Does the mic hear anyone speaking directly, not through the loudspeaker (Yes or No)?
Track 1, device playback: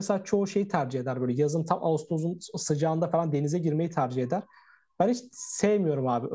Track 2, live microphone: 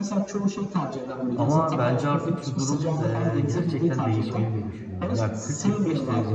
Yes